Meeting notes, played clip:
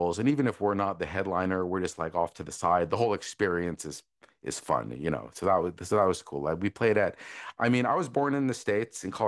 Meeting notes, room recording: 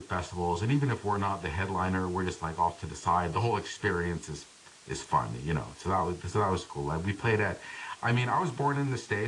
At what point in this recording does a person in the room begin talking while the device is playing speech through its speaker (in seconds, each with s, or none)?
none